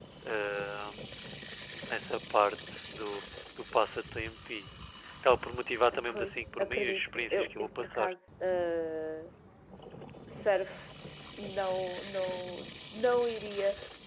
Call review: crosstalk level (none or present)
present